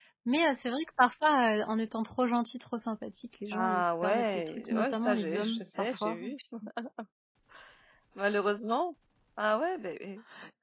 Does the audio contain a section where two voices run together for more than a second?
Yes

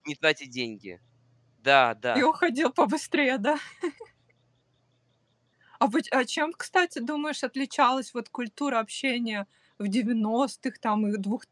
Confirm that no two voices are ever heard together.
Yes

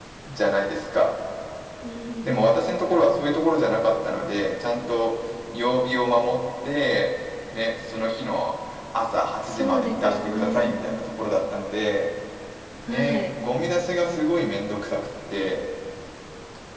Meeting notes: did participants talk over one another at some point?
Yes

